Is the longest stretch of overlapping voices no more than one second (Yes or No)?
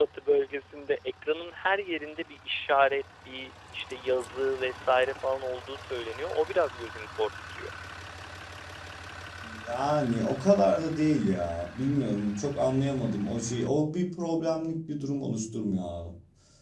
Yes